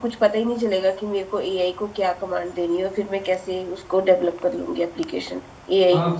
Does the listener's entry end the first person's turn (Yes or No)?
Yes